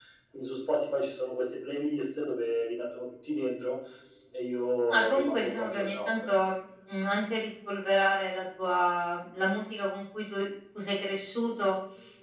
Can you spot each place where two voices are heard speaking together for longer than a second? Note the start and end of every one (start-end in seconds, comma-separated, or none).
4.9-6.3